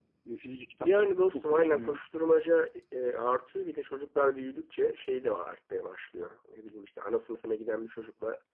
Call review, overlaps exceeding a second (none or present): present